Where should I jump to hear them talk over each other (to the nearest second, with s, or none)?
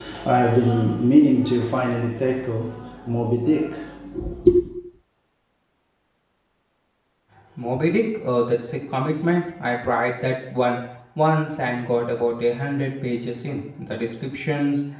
none